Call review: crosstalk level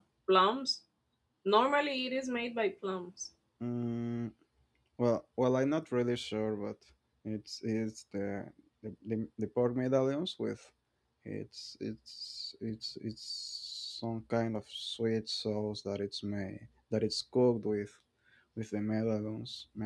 none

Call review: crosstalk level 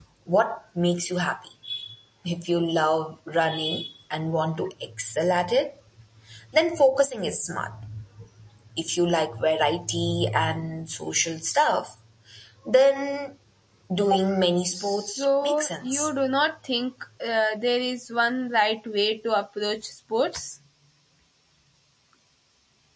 present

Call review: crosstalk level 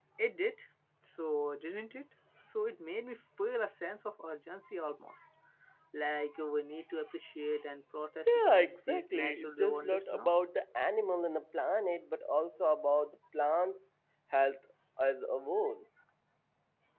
present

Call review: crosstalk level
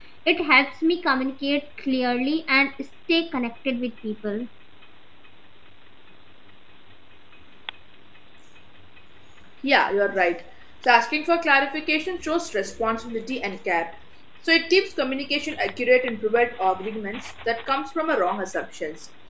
none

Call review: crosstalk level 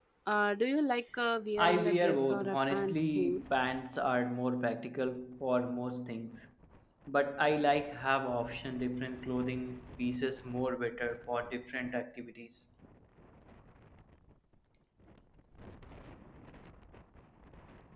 present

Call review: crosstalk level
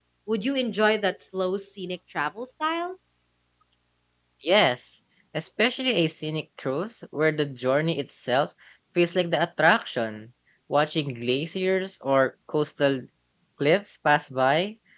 none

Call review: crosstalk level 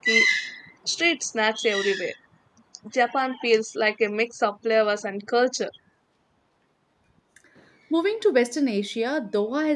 none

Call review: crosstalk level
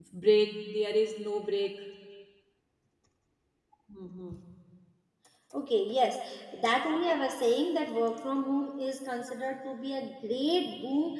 none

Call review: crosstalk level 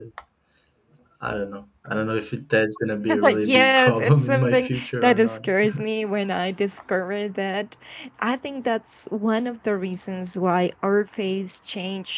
present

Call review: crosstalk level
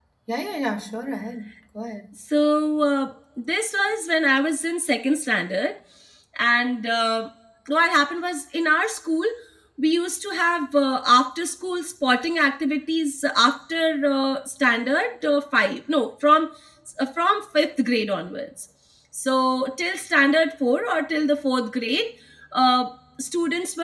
none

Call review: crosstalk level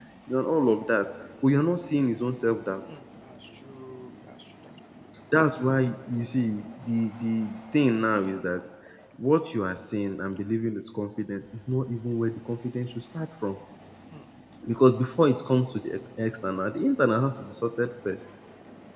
none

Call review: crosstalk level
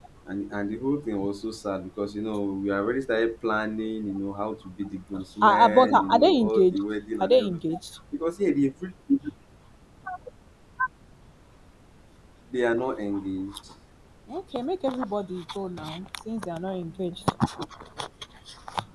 present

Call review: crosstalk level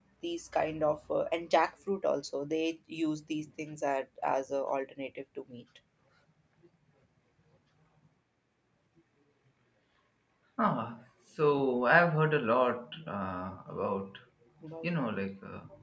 none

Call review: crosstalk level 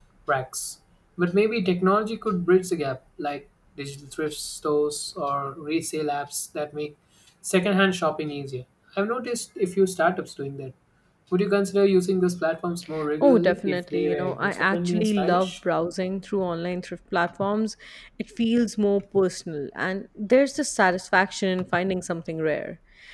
present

